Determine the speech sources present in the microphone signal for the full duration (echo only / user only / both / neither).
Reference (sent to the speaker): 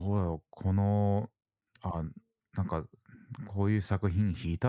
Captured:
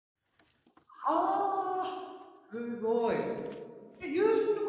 user only